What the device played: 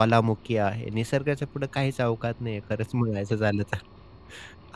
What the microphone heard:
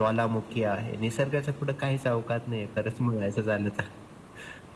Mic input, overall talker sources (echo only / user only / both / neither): echo only